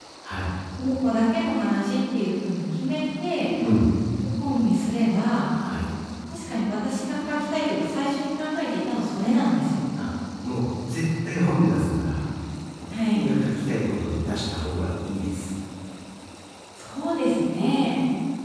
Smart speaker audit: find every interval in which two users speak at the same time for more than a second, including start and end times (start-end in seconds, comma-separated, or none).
none